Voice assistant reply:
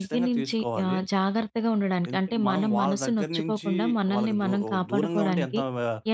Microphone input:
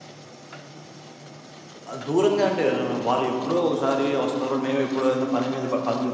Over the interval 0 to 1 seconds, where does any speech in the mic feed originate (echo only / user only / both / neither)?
neither